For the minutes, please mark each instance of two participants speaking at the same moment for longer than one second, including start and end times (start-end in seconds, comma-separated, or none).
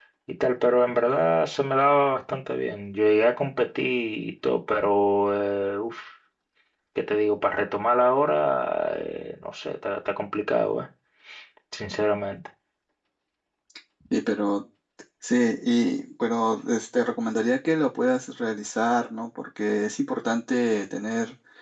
none